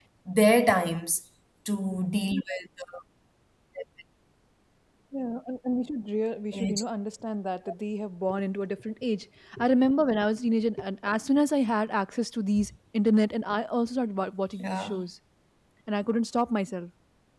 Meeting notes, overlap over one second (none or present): none